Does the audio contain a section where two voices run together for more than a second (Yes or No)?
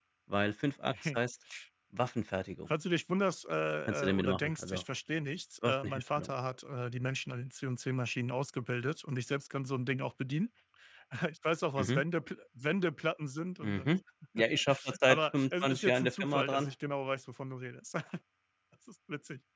Yes